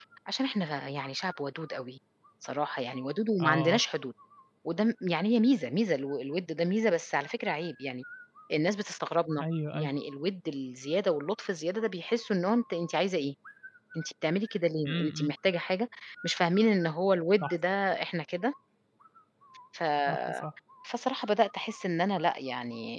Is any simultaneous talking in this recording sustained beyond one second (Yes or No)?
No